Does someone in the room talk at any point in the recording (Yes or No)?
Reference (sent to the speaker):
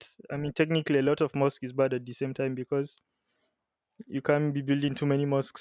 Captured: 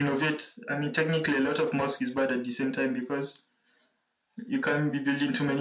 No